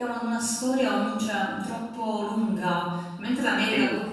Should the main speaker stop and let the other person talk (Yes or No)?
No